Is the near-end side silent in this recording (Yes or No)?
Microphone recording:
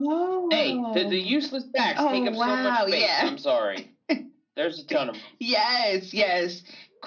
Yes